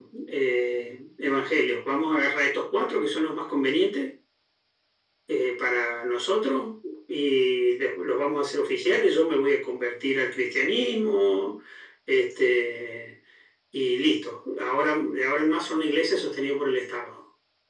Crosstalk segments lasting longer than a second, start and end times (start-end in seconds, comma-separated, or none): none